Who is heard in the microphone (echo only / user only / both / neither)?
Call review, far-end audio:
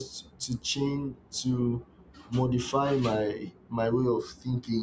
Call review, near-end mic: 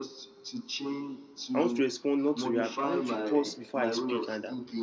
both